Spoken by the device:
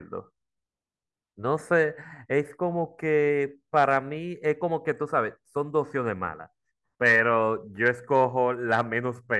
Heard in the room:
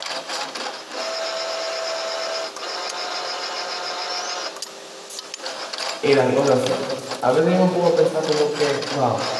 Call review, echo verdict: none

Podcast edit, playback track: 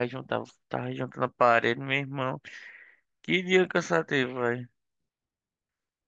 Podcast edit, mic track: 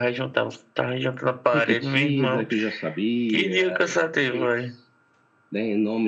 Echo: present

